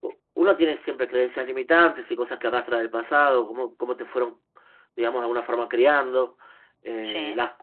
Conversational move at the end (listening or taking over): listening